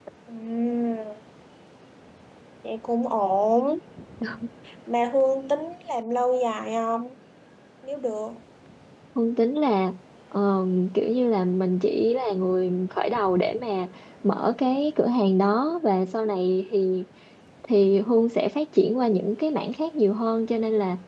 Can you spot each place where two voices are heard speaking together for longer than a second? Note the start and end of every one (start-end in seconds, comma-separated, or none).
none